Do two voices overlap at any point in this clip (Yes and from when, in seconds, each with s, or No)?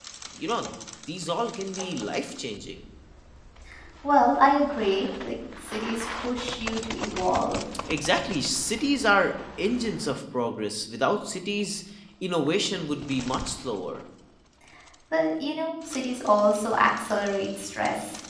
No